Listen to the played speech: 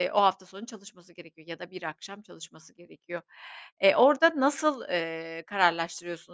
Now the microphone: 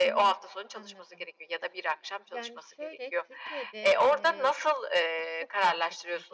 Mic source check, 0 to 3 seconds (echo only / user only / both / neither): both